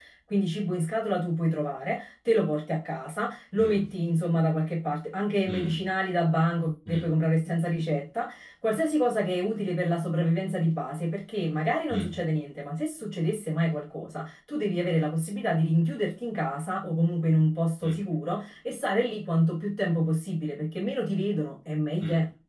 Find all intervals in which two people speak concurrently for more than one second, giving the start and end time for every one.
none

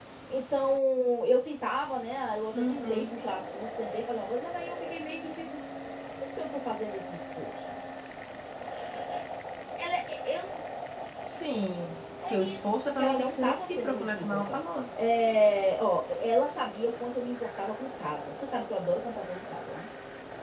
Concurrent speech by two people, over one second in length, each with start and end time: 12.3-14.6

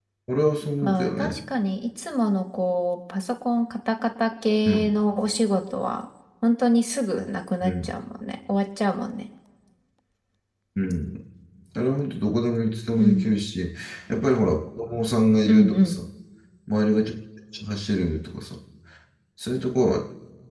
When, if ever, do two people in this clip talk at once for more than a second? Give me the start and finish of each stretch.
none

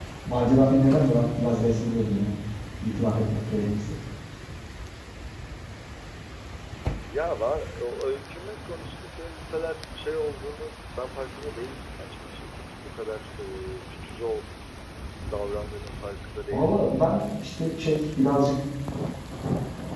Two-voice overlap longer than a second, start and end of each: none

